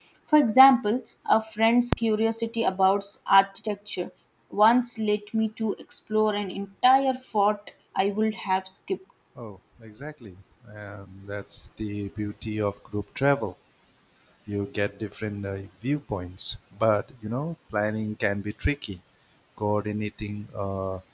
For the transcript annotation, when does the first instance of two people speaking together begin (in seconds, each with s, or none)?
none